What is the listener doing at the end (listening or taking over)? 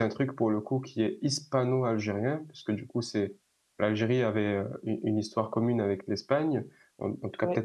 listening